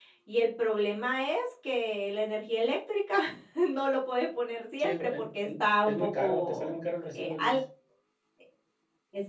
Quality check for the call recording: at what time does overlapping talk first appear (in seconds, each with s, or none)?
4.8 s